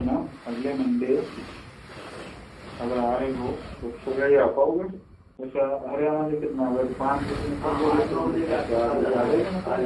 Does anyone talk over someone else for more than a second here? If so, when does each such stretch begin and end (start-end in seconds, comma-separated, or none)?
7.6-9.2